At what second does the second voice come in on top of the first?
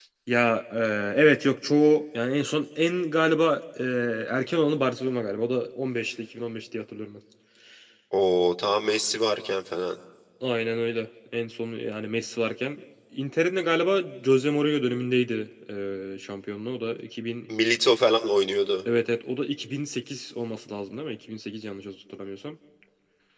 none

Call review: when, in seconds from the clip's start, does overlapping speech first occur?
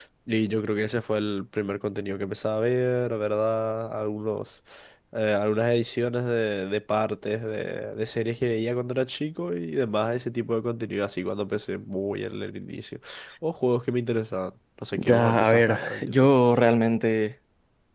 15 s

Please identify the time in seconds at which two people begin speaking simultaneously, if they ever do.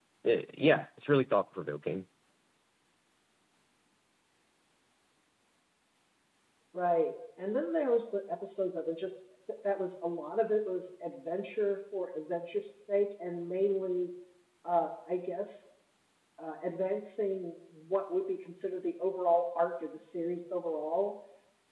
none

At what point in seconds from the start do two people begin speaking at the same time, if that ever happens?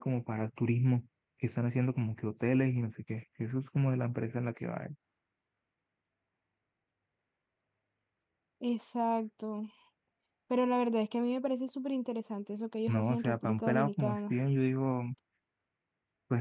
13 s

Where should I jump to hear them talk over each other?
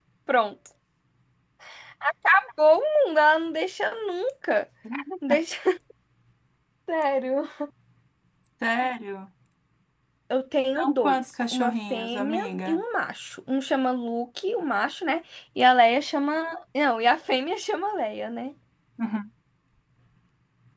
11 s

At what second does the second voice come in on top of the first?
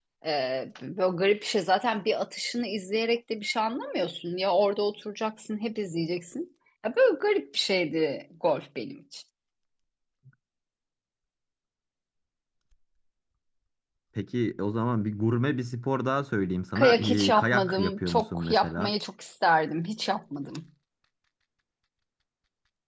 17 s

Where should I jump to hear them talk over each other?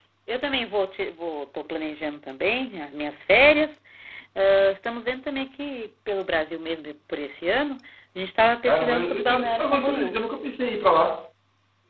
9 s

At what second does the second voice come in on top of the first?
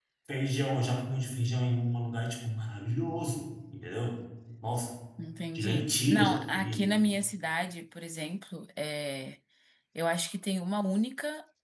6 s

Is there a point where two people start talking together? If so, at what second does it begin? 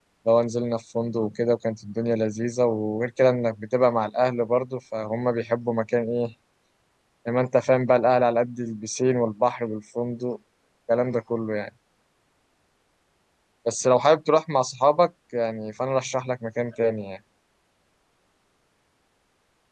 none

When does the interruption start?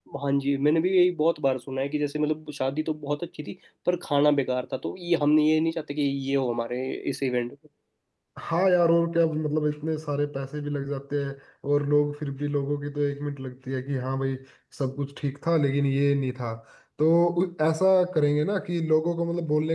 none

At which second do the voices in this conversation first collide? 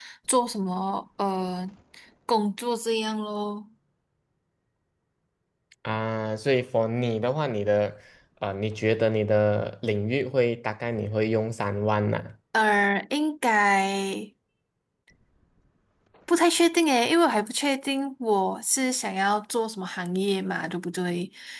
none

